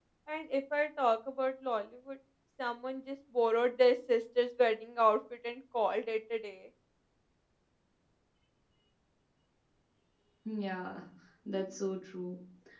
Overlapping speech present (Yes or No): No